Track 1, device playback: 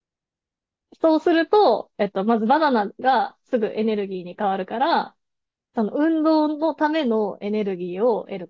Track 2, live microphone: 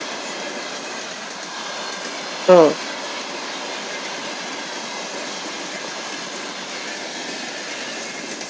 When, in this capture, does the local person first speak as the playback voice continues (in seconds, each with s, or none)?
2.5 s